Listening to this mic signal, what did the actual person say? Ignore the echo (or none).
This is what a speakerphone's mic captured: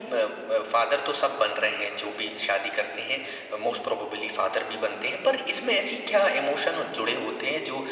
none